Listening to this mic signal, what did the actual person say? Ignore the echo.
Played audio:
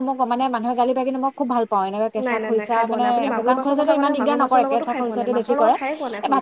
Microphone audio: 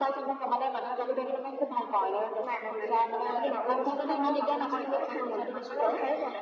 none

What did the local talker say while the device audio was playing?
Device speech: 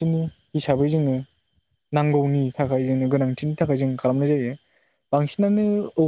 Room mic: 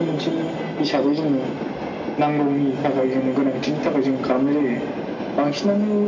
none

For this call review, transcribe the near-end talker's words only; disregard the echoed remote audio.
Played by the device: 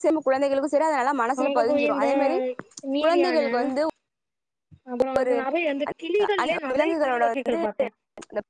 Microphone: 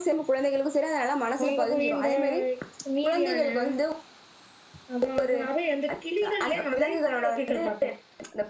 none

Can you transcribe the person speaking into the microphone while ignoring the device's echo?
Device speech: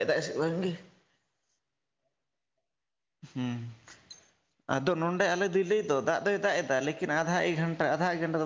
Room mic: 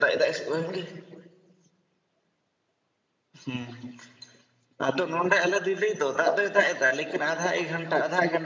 none

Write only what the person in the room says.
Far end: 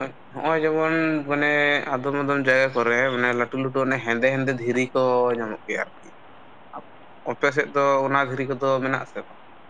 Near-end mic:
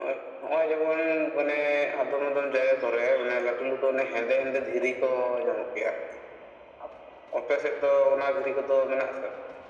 none

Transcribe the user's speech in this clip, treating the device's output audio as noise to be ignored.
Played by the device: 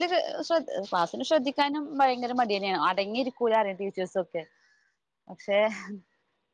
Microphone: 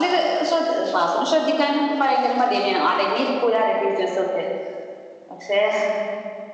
none

